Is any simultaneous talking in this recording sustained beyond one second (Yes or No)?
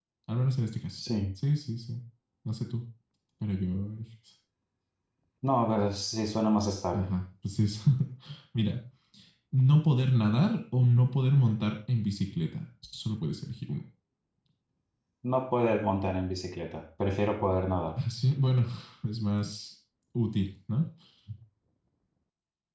No